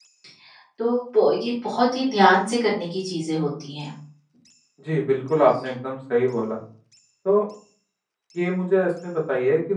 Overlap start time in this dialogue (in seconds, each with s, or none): none